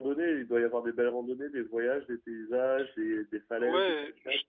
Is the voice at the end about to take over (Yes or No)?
Yes